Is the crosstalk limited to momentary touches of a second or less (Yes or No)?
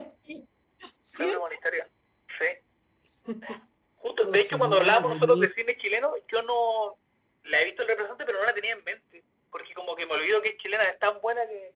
No